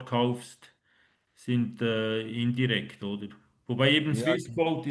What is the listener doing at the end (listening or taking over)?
listening